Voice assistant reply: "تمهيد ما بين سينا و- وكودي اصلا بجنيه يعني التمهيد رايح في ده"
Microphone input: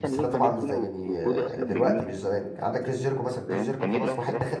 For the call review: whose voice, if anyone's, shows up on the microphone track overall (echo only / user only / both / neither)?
both